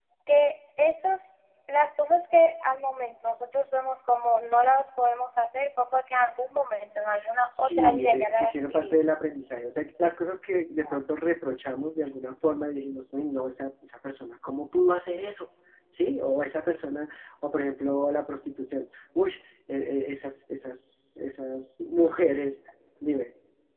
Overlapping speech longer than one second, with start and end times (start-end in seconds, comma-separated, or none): 7.5-9.2